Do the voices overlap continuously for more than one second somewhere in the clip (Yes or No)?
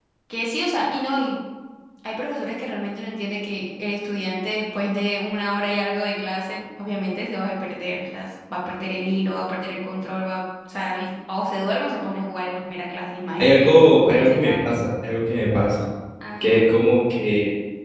Yes